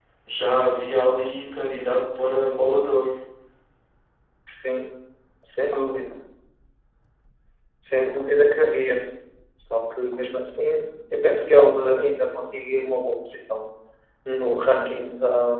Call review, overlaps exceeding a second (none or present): none